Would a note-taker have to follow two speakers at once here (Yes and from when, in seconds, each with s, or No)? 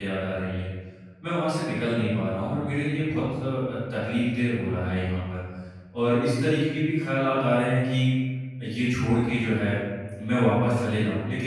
No